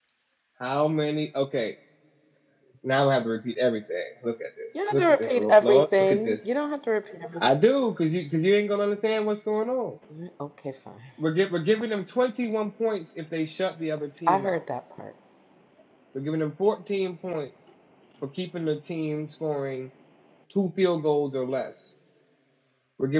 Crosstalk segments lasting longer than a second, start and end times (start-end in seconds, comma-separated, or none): 4.9-6.4